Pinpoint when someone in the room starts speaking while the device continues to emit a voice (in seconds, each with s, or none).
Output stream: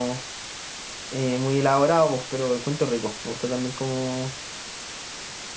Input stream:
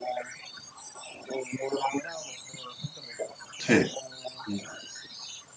3.6 s